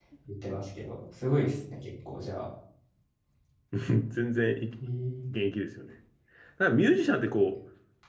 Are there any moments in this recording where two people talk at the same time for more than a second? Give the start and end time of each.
none

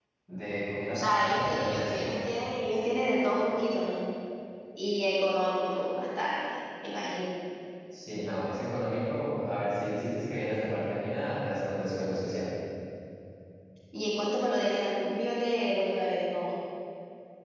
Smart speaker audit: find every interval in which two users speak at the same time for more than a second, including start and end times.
0.9-2.1

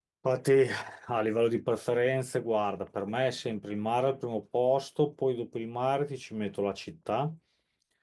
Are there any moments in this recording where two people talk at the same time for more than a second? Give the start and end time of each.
none

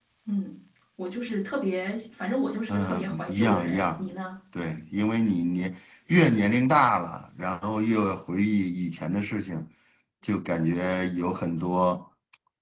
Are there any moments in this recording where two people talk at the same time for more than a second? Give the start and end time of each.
2.7-4.0

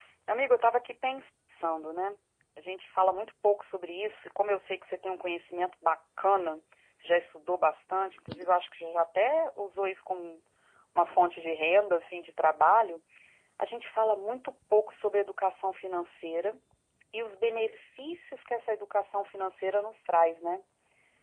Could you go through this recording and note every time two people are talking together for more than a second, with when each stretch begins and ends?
none

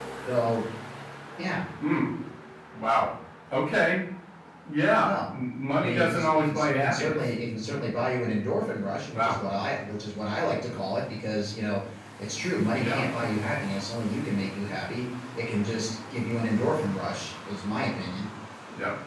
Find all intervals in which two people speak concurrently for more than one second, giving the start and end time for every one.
5.8-7.3

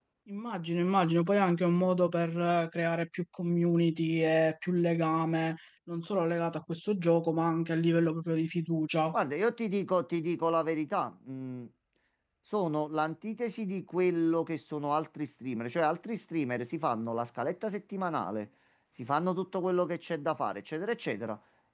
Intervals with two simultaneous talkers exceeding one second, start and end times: none

